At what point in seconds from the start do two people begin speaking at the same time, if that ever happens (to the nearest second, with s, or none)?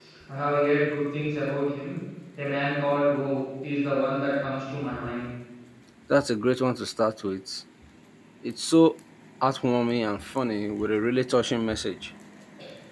none